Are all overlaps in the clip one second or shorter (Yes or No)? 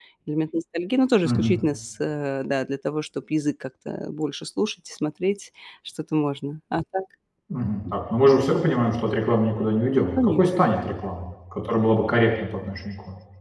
Yes